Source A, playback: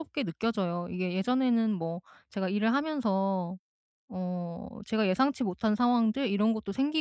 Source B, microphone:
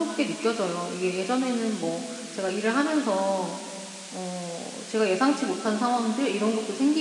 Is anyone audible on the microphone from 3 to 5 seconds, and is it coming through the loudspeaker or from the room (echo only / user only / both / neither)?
echo only